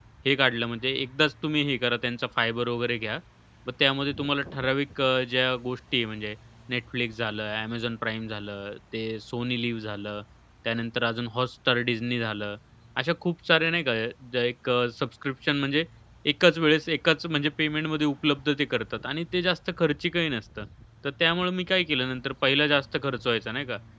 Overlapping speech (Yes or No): No